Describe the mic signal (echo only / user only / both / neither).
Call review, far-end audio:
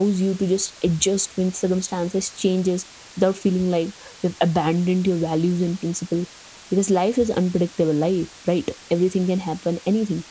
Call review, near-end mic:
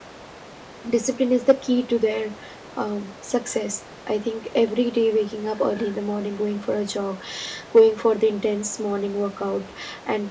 user only